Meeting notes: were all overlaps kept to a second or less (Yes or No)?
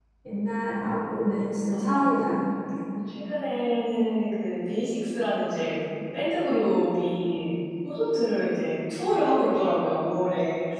Yes